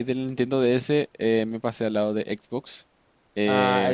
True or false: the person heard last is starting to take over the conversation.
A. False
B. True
A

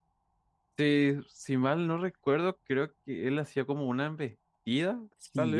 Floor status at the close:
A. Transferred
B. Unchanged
A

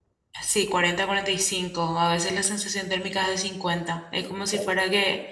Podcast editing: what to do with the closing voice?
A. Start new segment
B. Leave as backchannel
B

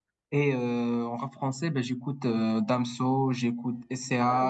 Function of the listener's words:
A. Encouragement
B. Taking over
A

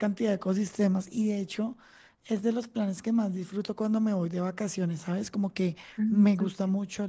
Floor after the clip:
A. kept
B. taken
A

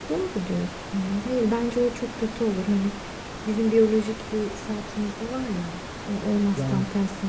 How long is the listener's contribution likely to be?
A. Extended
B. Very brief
B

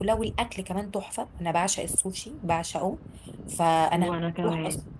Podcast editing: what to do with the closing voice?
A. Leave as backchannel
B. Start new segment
A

